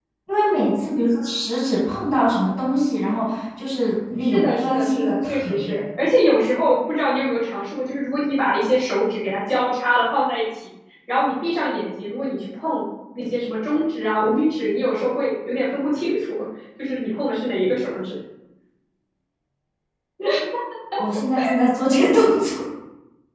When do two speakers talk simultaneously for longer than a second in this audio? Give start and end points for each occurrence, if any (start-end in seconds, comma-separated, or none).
4.2-5.7